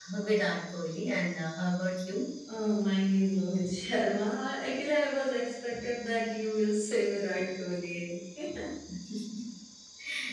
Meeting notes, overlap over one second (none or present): none